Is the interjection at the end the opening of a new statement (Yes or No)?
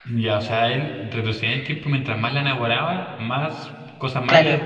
Yes